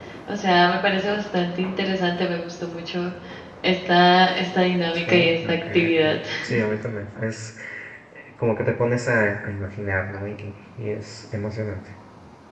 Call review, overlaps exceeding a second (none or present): present